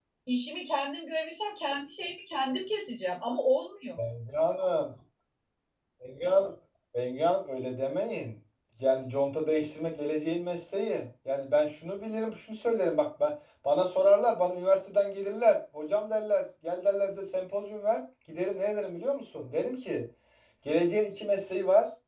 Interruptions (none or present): none